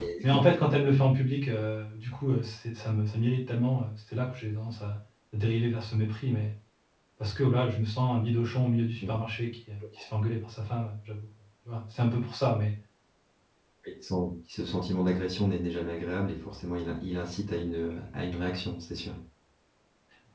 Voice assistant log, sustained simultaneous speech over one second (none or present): none